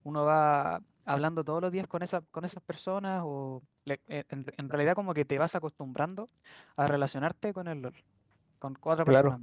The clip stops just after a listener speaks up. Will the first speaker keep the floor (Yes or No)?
No